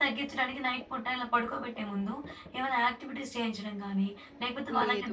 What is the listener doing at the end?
listening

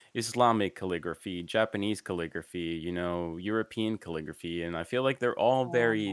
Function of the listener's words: listening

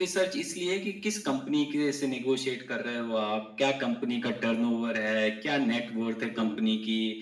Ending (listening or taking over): listening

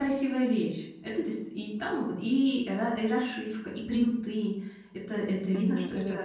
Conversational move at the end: taking over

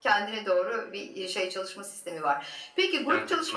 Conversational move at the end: listening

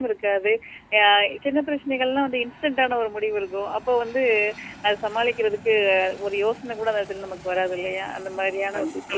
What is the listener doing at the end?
listening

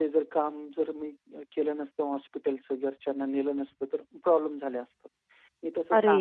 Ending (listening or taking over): listening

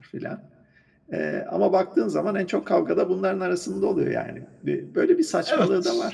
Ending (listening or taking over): taking over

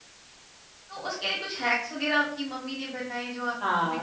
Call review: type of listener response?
taking over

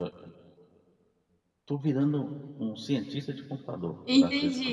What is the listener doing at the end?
taking over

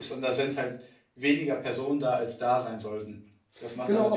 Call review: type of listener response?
taking over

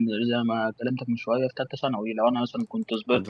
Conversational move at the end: listening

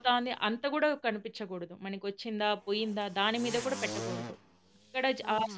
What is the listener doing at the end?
listening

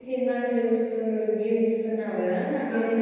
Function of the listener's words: listening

